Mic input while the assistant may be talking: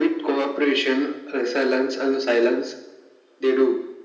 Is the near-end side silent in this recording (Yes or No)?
Yes